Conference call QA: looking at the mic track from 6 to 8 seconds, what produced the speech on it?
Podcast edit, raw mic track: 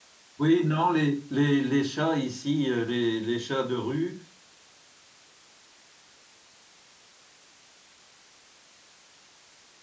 neither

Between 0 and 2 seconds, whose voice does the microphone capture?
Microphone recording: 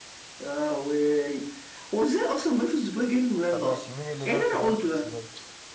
echo only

